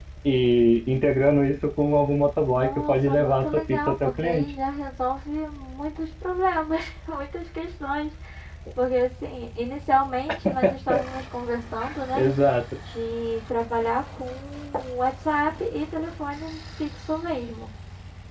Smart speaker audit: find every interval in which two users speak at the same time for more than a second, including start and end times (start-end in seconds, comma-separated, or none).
2.5-4.5